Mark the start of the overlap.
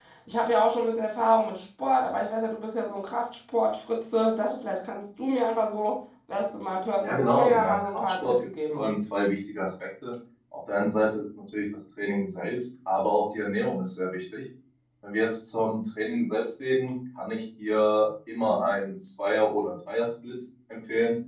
7.0 s

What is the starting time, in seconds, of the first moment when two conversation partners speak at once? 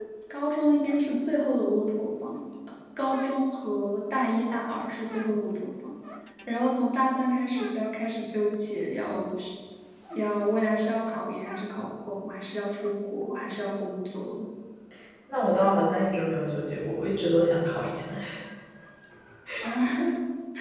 none

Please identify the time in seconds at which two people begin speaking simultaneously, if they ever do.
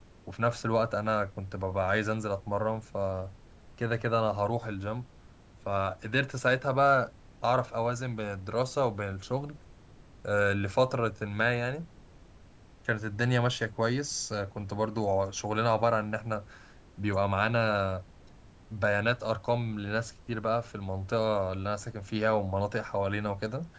none

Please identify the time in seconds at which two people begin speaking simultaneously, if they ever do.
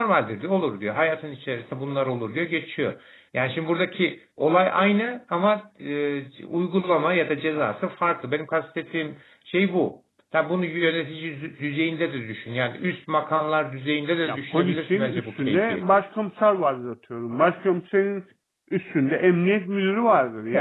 14.3 s

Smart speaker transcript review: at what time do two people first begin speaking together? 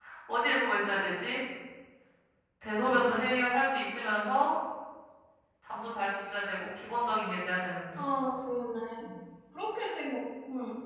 none

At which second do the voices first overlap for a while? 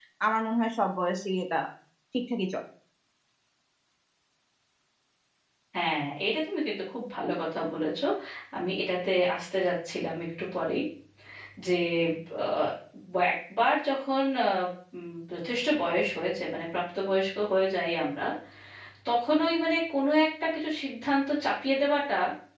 none

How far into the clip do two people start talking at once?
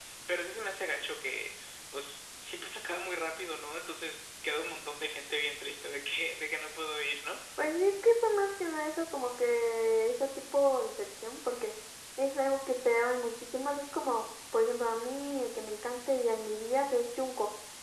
none

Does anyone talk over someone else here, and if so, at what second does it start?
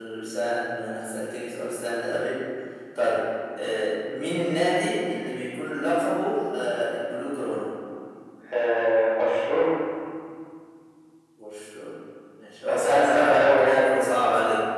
12.7 s

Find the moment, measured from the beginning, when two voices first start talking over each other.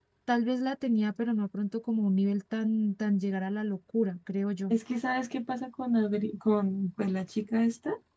none

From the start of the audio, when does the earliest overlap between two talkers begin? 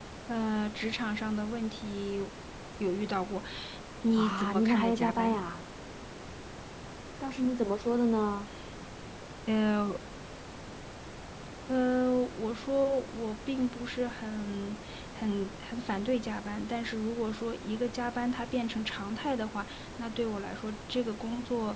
4.2 s

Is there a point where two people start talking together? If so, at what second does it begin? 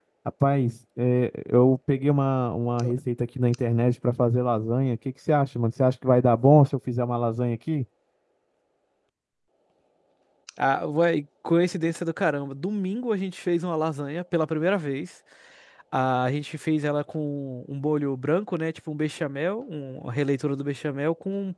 none

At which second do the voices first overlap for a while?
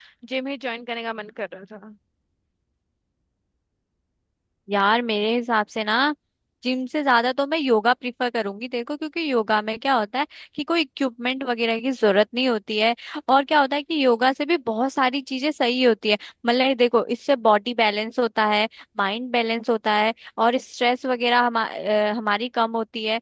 none

